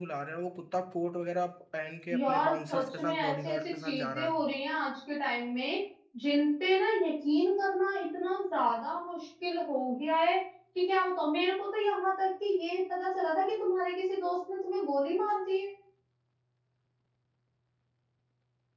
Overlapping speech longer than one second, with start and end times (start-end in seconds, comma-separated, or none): 2.1-4.3